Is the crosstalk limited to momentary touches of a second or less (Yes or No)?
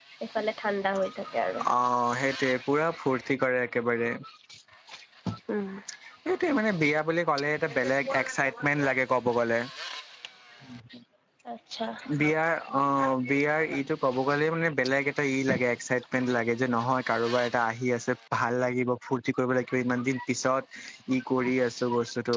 Yes